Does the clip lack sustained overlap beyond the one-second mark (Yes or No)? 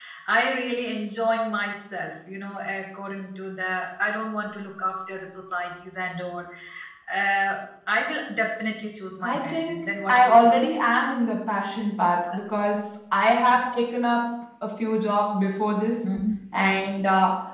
No